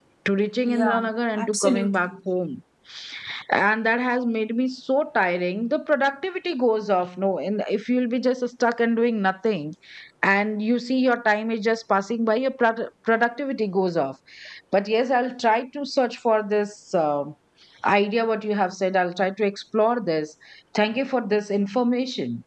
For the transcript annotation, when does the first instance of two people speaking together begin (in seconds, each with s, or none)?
0.6 s